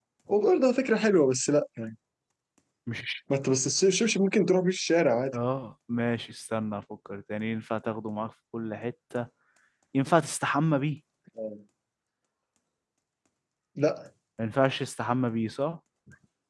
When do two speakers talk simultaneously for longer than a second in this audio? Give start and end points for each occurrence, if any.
none

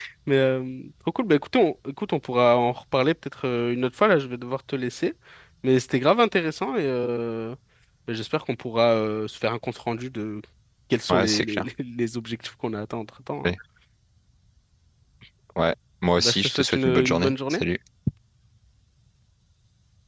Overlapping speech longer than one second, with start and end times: 16.2-17.6

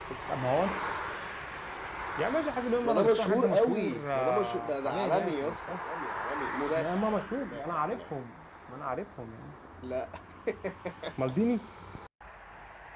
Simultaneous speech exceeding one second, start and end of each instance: 2.8-5.8, 6.7-8.0

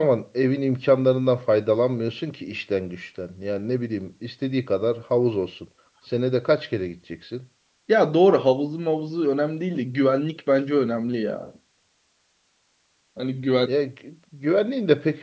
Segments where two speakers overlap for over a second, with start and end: none

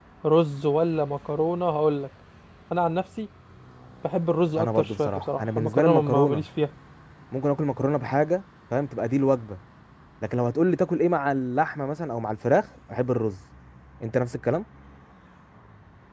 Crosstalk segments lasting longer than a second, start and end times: 4.6-6.5

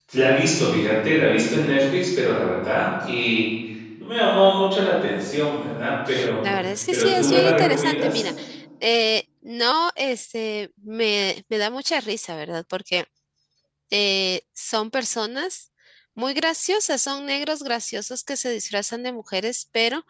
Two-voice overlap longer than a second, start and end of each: 6.9-8.2

